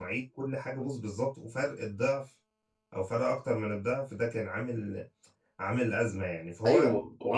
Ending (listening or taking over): taking over